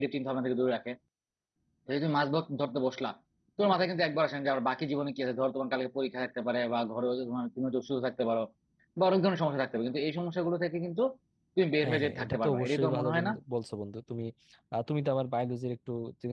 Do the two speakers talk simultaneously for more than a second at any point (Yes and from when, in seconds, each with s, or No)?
Yes, from 11.8 s